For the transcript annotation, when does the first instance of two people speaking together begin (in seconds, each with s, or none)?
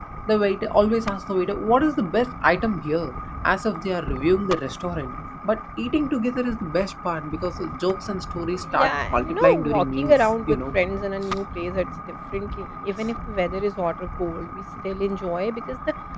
8.7 s